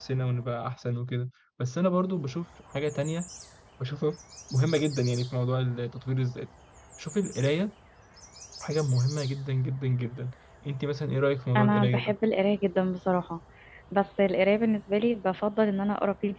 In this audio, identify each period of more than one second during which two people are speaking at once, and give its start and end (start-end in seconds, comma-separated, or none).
none